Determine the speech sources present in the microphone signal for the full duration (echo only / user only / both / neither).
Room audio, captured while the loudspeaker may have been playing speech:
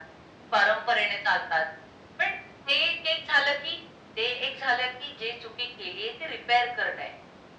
echo only